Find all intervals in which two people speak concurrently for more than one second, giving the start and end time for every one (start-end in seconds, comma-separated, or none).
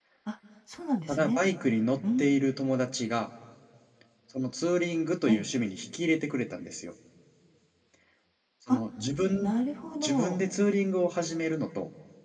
none